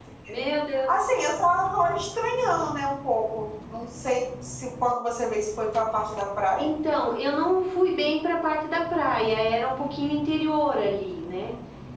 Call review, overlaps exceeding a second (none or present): none